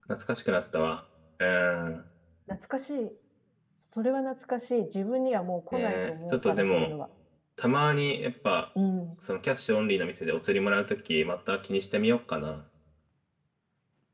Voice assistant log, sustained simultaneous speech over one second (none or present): present